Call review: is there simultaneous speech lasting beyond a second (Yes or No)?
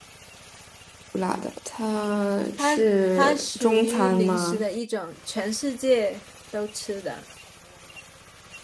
Yes